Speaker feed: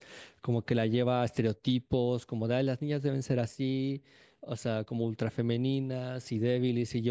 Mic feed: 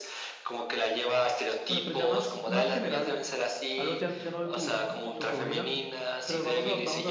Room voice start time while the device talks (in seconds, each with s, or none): 1.6 s